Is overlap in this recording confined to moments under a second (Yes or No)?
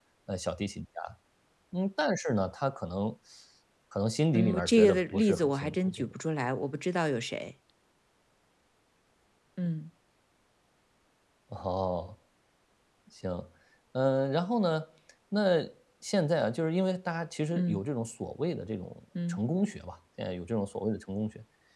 No